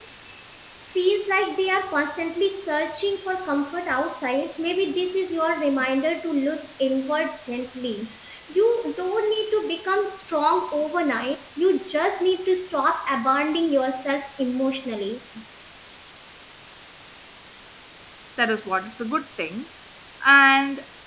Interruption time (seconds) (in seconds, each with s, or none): none